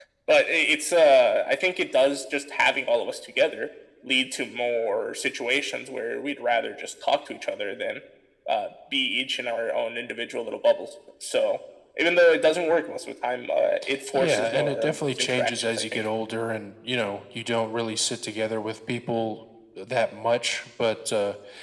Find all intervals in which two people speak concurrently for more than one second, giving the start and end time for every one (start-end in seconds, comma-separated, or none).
14.1-16.1